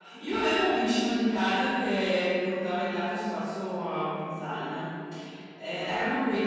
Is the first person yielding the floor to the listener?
No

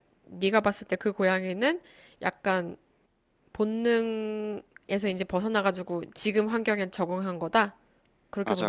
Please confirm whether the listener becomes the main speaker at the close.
Yes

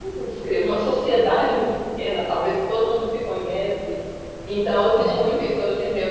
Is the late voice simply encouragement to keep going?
Yes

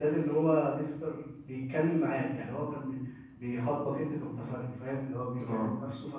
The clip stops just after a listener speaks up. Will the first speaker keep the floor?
Yes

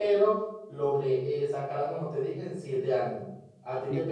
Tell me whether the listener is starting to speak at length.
No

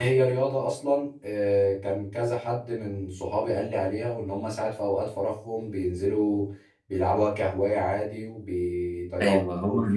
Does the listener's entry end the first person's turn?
Yes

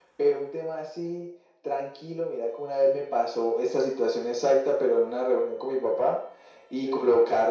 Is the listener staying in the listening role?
Yes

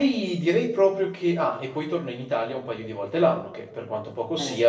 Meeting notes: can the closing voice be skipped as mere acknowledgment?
Yes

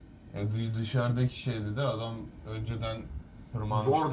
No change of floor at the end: No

